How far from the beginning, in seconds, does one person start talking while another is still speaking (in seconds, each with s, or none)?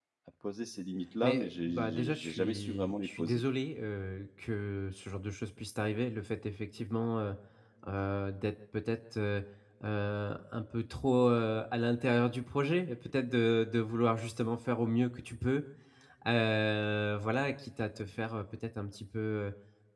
1.2 s